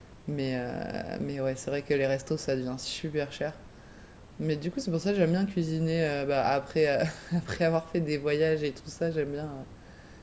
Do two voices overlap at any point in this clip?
No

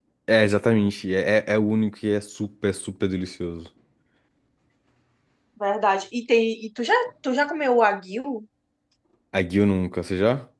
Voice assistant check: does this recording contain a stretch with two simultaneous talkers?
No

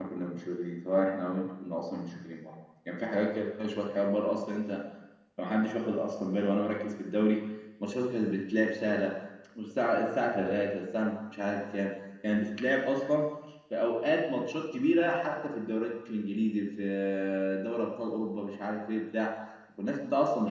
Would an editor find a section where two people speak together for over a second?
No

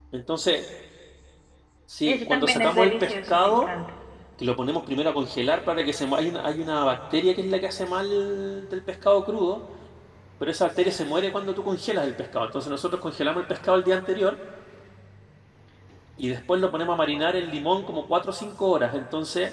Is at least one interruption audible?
Yes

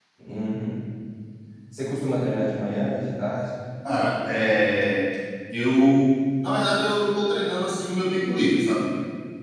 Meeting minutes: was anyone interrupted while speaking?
No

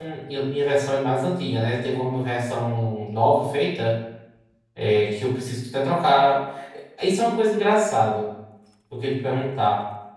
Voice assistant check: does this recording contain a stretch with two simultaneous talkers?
No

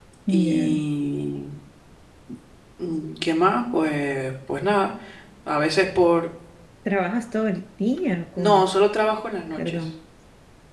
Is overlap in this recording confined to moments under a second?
Yes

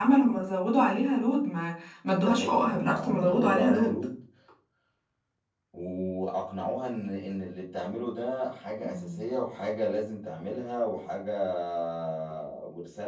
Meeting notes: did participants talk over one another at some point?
Yes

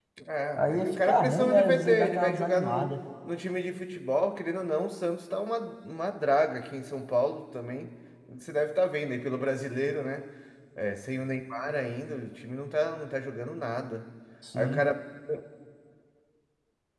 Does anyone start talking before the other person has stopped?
Yes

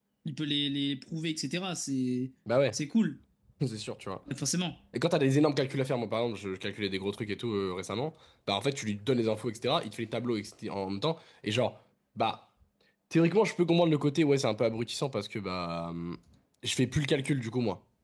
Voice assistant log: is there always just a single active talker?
Yes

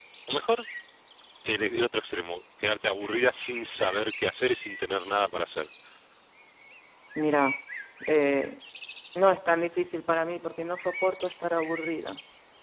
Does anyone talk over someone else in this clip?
No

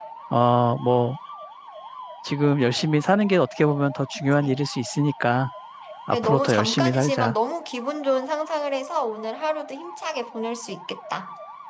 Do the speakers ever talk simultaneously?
Yes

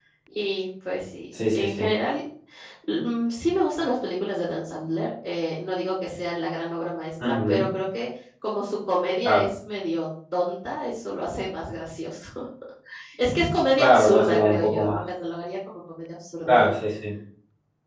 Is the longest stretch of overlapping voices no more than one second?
No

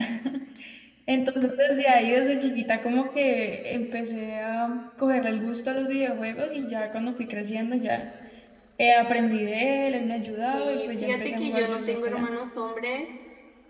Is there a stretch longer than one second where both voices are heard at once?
Yes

